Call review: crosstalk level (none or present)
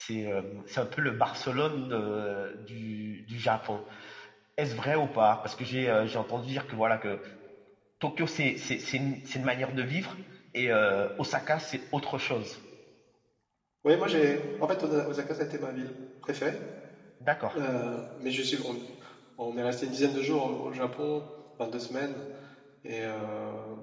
none